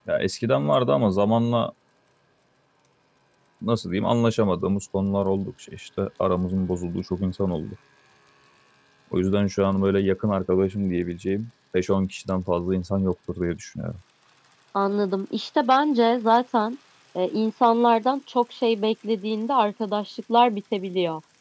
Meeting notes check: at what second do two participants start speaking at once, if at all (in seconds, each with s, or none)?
none